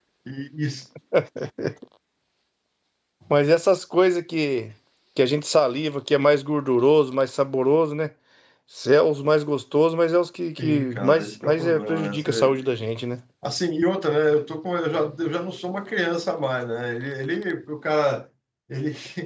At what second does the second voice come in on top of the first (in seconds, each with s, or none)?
10.6 s